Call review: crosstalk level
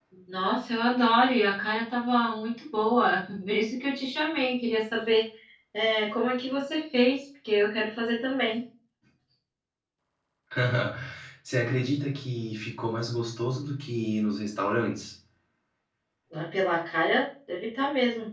none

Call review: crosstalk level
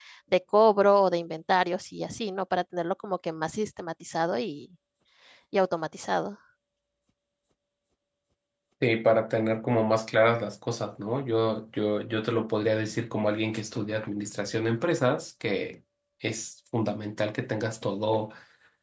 none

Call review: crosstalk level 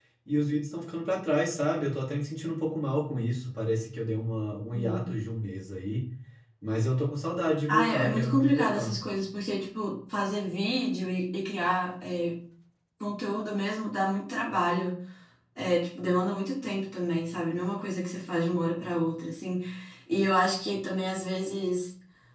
present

